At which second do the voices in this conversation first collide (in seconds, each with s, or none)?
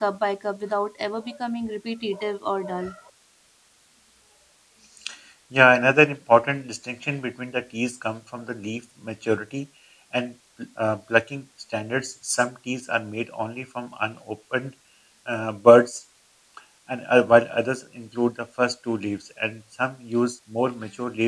none